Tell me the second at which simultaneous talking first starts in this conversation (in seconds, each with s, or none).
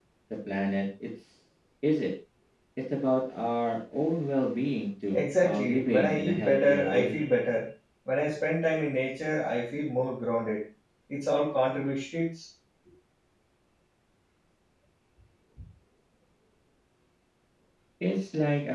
5.1 s